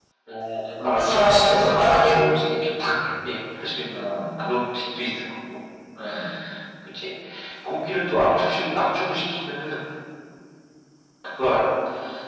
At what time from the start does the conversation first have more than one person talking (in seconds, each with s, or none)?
0.8 s